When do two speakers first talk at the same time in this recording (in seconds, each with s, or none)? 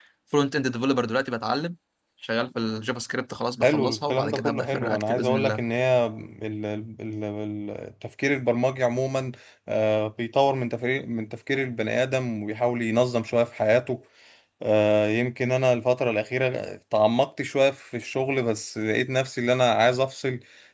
3.6 s